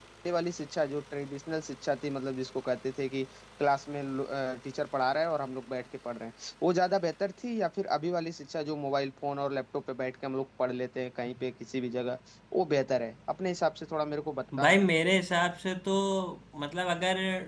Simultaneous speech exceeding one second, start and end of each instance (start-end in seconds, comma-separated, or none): none